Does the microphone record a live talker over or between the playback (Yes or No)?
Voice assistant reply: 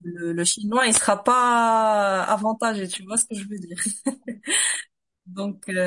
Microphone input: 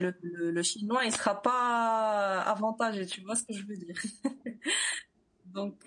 No